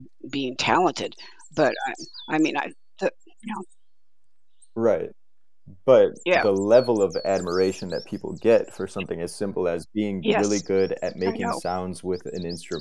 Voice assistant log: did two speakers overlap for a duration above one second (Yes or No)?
No